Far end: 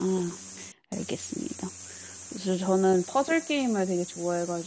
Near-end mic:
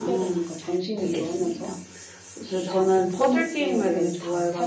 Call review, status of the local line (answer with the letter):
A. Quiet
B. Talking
B